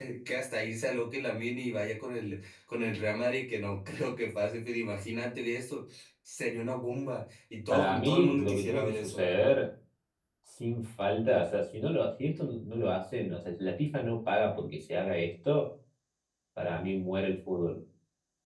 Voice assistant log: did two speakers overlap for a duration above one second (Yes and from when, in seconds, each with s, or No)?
Yes, from 7.7 s